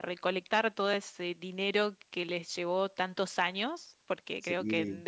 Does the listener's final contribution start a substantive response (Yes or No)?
No